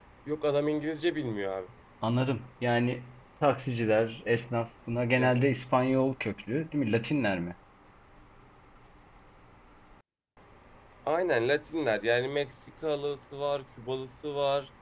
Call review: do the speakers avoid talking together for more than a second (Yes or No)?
Yes